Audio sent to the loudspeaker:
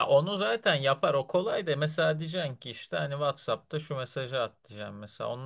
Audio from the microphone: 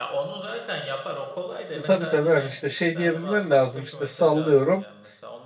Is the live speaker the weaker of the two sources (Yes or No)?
No